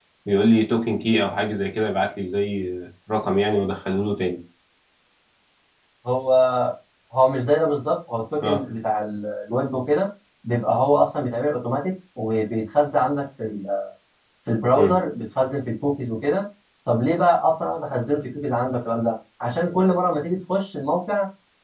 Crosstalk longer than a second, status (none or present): none